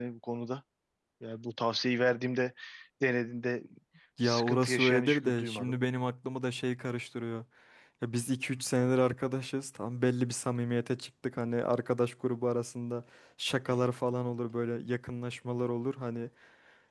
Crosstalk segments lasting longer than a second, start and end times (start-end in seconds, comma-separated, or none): 4.2-5.8